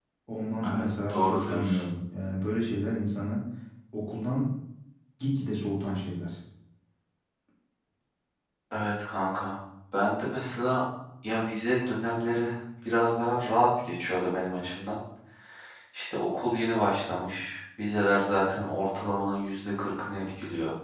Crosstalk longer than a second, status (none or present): present